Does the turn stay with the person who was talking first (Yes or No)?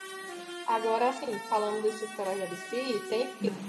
Yes